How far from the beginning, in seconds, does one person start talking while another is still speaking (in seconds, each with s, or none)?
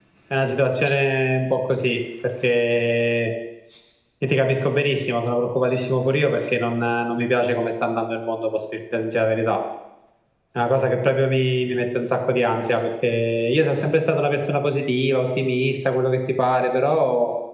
none